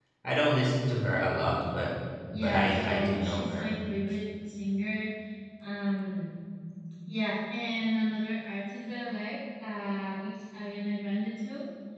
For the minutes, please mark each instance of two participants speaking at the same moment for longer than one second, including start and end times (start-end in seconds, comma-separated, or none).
2.3-3.7